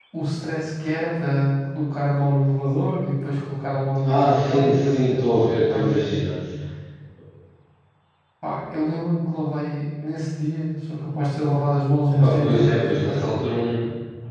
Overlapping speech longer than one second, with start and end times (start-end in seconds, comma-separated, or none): 4.0-6.2, 12.1-13.4